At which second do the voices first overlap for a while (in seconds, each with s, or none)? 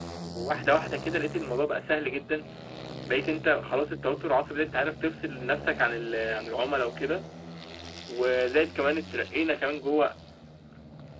none